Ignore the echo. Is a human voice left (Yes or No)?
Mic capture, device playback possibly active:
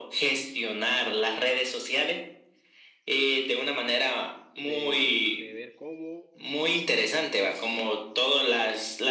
Yes